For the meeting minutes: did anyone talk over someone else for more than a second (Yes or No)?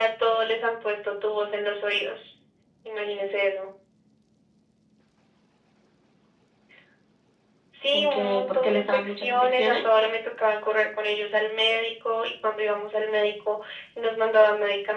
Yes